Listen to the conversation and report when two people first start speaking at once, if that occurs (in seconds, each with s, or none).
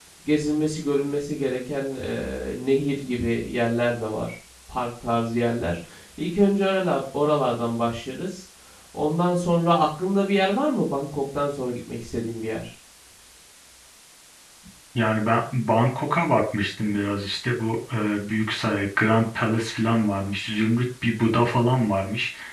none